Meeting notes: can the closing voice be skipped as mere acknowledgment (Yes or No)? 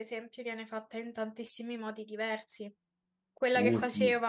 Yes